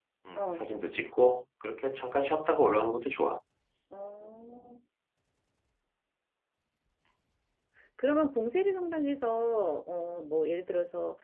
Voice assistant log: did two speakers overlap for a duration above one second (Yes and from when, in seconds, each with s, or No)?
No